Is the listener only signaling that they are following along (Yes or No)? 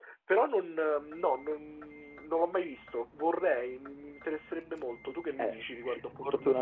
No